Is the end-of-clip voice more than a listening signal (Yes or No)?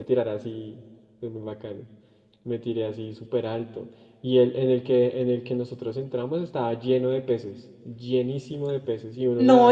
Yes